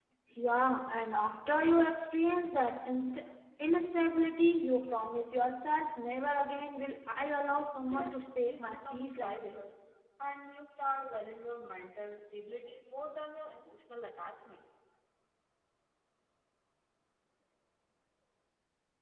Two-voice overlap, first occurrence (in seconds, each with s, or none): 7.8 s